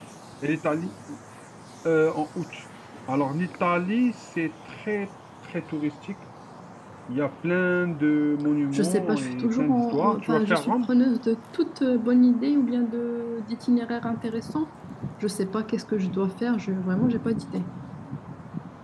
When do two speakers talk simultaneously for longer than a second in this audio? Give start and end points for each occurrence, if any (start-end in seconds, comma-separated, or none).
8.7-10.9